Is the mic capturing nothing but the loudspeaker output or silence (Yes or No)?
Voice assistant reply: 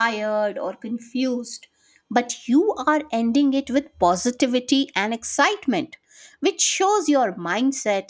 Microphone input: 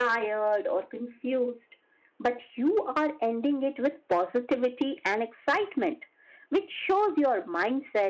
Yes